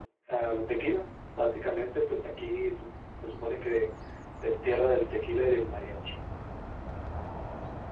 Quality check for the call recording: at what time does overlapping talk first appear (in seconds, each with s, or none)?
none